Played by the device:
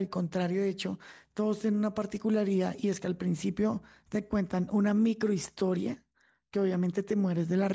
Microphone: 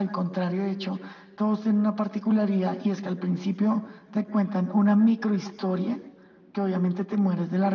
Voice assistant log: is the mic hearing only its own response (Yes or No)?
Yes